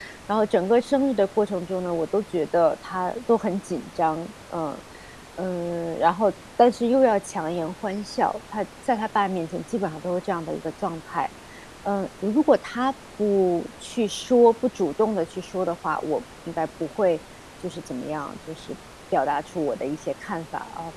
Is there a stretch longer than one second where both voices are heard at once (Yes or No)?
No